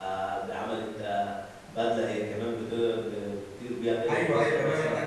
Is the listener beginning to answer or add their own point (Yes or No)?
Yes